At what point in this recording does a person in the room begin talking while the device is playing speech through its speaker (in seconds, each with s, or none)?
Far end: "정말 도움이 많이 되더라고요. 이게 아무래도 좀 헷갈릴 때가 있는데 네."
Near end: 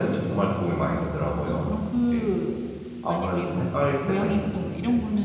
1.4 s